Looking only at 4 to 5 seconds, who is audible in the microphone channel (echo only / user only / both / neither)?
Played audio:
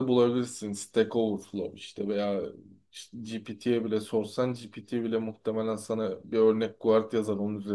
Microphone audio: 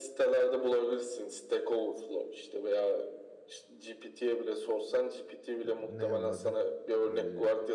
echo only